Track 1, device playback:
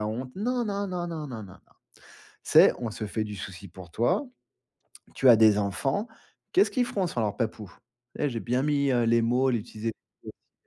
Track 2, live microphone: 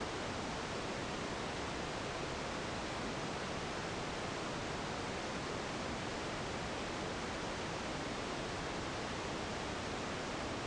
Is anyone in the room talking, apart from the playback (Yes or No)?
No